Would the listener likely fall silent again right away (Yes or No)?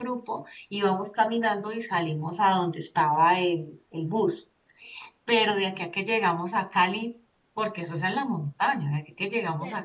No